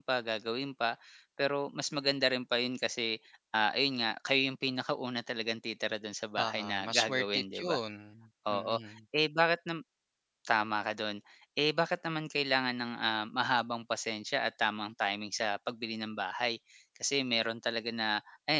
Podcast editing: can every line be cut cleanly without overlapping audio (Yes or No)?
No